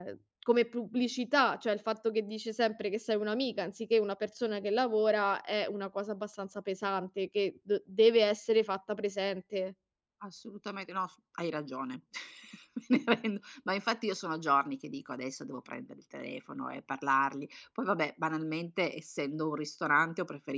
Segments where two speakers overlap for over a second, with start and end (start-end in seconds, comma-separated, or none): none